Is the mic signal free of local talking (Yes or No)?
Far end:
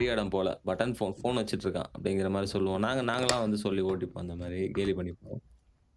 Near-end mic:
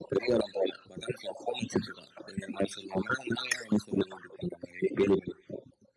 Yes